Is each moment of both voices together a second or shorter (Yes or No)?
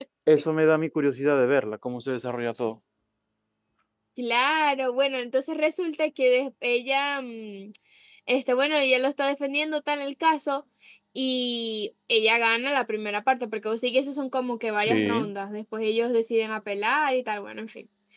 Yes